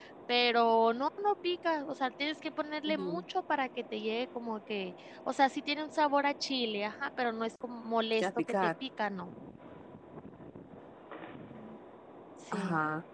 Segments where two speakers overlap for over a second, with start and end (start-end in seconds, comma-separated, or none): none